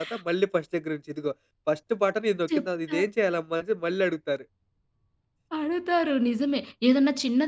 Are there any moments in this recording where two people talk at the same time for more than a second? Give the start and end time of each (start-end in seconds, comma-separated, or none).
none